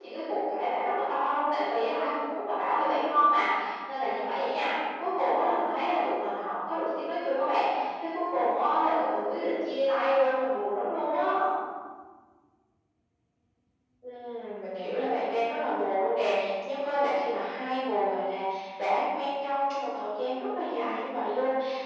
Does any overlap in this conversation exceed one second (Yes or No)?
No